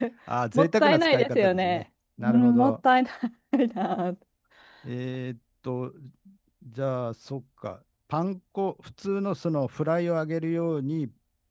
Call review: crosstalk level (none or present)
present